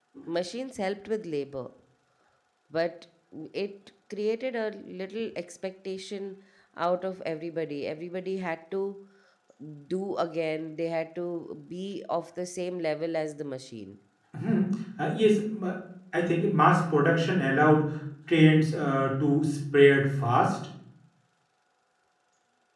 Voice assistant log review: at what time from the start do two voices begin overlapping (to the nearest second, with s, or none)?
none